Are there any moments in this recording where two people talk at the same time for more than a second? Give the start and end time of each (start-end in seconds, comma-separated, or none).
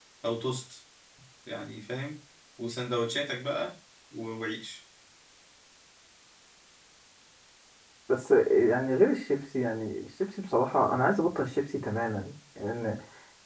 none